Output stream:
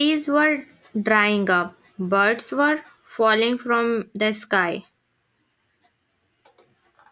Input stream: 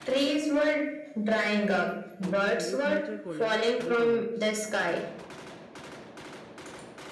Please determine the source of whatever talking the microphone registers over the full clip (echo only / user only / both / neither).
both